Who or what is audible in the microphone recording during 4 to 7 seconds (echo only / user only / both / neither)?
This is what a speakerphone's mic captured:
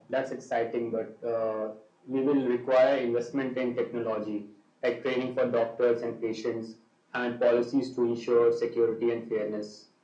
echo only